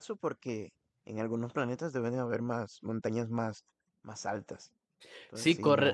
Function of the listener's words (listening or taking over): taking over